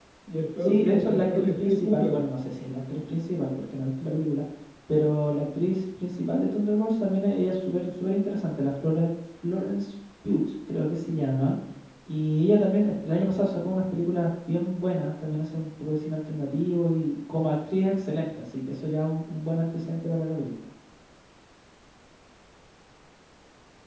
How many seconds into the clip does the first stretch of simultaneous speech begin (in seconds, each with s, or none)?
0.6 s